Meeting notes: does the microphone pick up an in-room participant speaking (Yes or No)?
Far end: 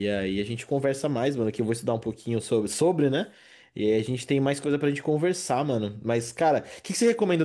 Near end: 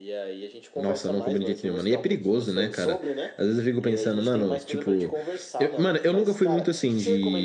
Yes